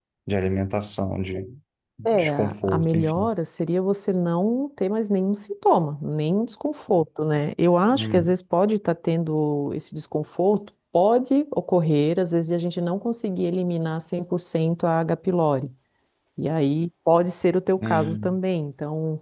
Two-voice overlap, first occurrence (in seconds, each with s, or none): 2.0 s